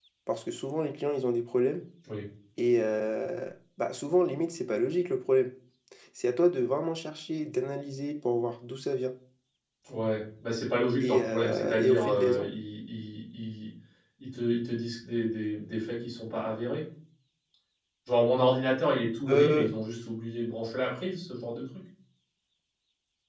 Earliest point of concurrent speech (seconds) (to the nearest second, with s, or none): 11 s